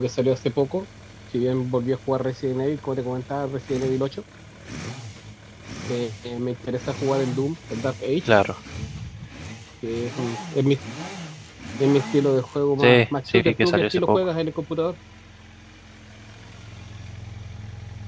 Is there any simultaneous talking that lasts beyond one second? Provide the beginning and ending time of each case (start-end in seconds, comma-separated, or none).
12.8-14.2